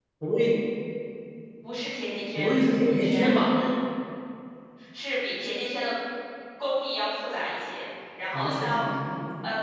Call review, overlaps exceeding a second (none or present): present